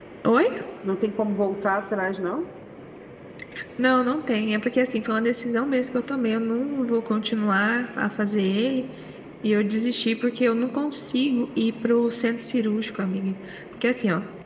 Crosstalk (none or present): none